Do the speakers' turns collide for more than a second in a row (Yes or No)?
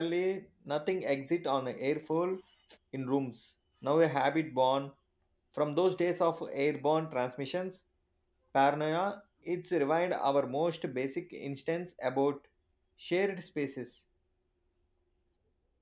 No